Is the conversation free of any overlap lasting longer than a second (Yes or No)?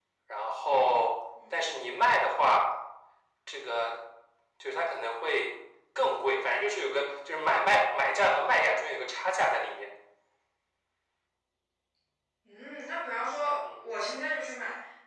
Yes